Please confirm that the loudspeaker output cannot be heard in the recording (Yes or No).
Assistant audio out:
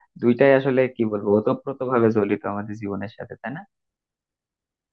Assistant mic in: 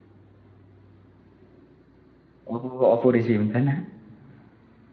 Yes